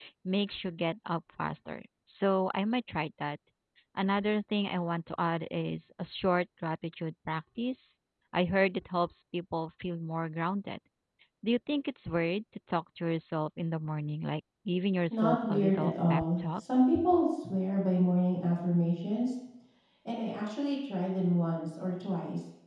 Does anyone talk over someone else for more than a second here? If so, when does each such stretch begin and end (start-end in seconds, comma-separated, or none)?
15.1-16.6